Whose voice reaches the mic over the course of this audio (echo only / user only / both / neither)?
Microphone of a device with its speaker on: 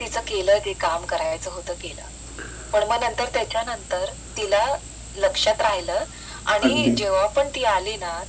both